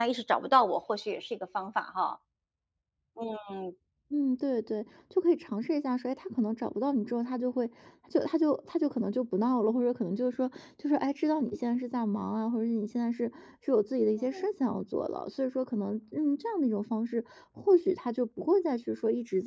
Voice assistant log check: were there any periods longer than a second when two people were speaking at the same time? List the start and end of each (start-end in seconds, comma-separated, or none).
none